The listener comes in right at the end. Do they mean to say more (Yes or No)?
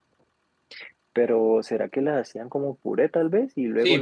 Yes